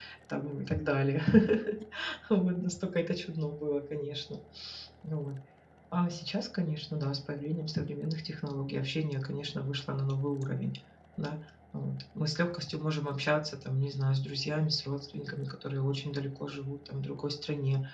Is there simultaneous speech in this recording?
No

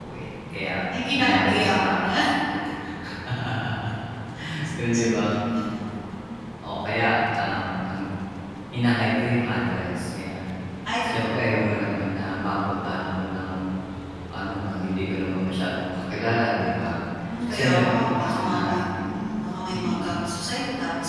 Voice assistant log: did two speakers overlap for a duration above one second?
Yes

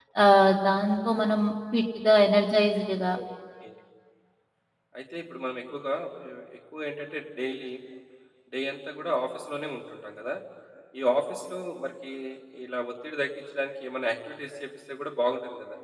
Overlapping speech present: No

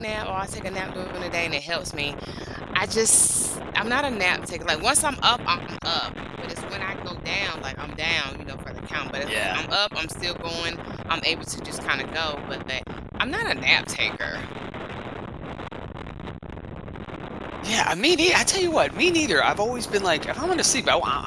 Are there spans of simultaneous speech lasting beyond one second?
No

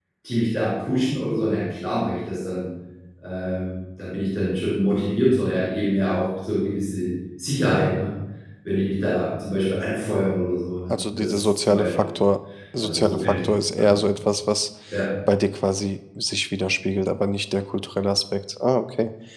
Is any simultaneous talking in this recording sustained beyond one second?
Yes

